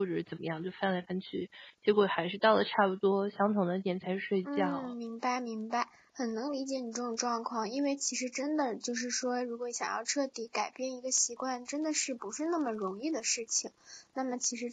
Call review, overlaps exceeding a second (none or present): none